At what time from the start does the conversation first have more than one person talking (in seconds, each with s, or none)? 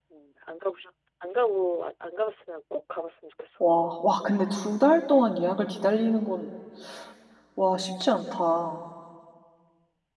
none